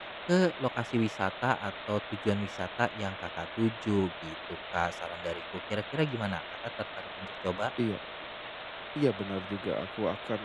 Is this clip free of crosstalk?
Yes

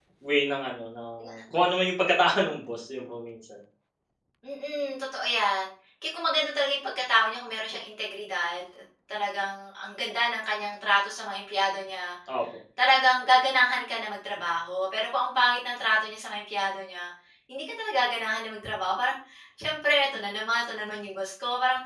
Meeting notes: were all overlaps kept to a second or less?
Yes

